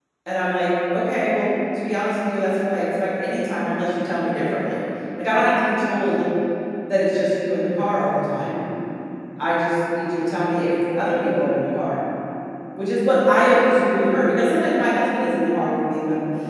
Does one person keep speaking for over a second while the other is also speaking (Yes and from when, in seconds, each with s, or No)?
No